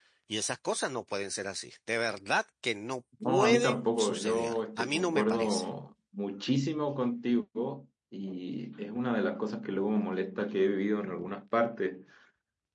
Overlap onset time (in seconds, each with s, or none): 3.2 s